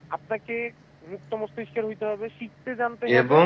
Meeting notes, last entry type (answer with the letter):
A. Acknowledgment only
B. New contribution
B